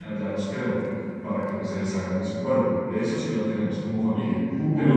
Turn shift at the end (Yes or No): No